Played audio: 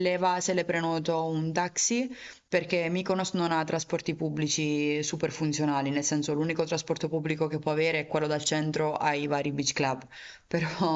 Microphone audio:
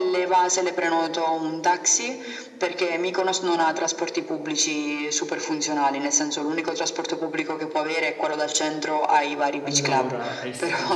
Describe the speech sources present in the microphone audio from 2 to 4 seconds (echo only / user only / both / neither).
echo only